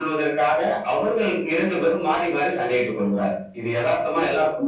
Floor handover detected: Yes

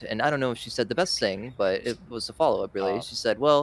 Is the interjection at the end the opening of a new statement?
No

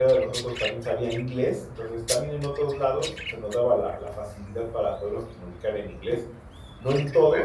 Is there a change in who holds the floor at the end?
No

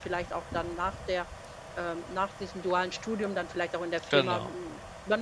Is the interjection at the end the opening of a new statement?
No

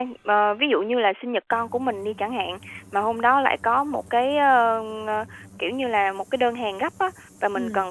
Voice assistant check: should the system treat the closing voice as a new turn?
No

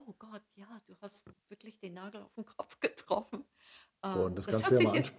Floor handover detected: Yes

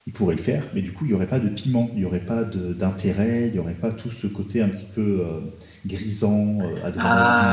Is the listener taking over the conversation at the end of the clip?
Yes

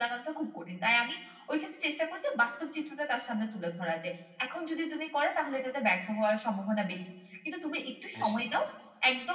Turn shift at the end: No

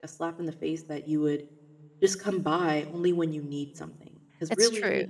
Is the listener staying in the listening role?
Yes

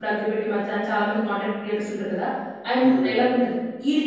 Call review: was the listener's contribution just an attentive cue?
Yes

